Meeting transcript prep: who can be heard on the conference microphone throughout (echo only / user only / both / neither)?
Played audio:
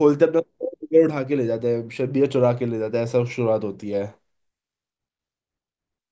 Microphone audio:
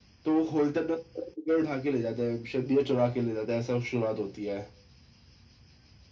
echo only